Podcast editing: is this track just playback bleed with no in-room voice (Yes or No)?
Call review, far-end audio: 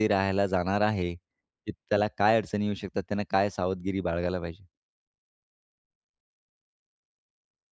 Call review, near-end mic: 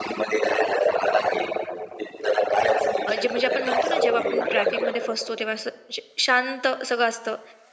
No